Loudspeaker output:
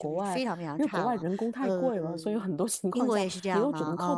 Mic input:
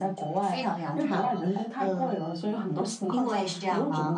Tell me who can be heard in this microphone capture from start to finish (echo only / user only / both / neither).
echo only